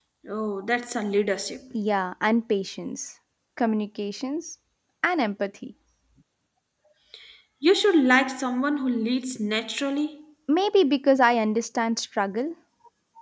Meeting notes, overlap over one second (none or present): none